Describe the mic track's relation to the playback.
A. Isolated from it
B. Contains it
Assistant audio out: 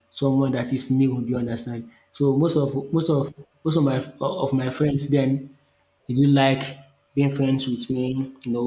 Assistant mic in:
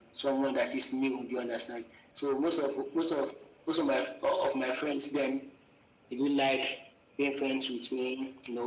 B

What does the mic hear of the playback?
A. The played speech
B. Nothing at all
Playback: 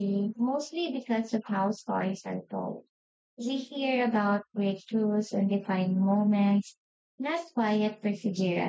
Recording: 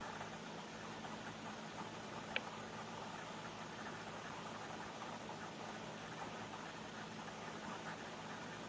B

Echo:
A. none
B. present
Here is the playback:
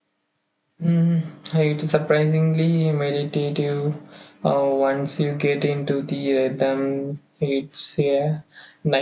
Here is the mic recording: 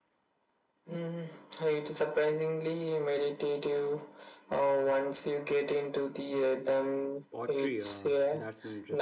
B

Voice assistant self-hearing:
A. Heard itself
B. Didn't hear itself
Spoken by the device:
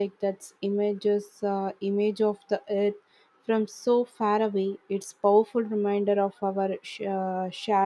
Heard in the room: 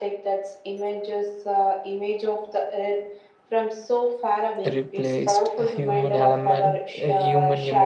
A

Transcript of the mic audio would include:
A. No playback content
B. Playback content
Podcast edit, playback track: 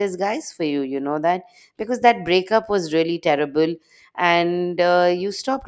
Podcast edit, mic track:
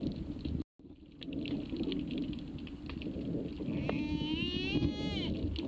A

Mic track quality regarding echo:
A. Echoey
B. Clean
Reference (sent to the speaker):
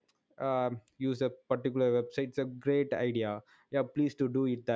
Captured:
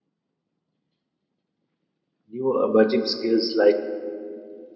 B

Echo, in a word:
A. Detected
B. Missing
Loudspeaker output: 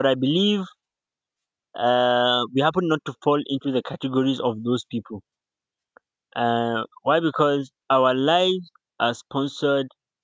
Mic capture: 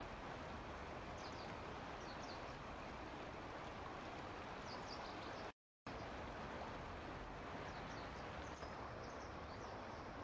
B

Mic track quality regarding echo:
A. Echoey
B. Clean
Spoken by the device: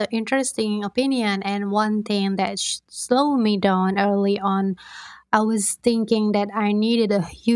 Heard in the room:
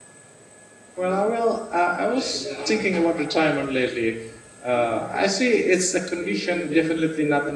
B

